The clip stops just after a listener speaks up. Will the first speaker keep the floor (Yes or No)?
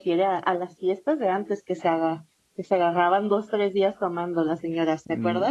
No